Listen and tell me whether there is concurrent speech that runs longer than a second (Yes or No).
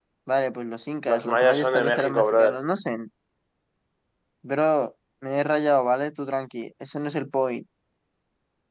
Yes